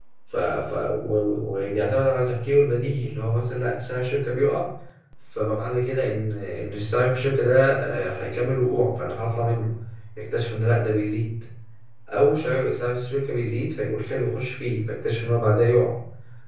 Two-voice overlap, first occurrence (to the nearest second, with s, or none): none